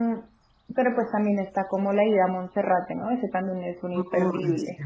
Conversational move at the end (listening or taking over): taking over